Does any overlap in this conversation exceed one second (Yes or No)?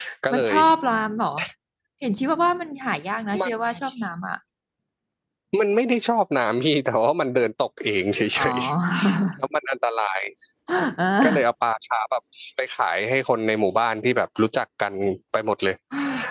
No